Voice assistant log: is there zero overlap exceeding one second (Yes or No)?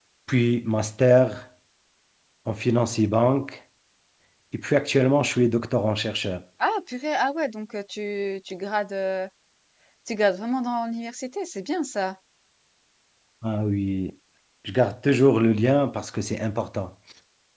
Yes